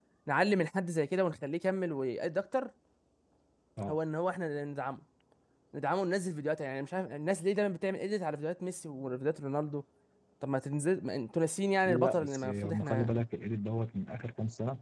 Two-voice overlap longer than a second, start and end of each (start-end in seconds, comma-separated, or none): 11.8-13.1